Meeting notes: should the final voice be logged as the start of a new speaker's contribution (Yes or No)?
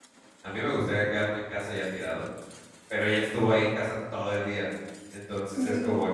No